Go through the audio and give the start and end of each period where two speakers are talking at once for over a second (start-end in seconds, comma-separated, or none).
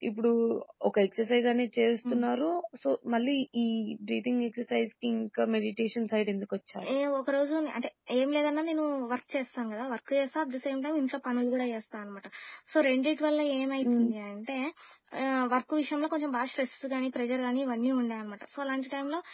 none